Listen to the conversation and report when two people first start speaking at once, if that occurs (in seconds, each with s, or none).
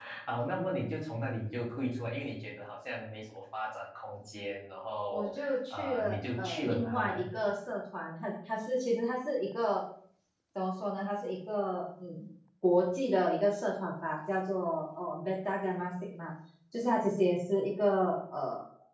5.1 s